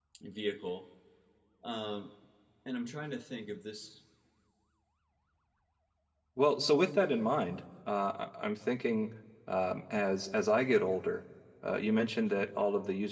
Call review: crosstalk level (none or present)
none